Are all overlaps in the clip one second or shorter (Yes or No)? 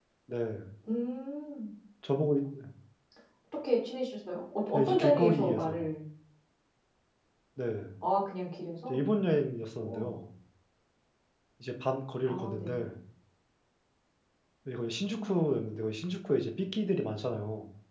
No